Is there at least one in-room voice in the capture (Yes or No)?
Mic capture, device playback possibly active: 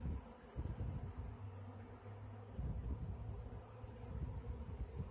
No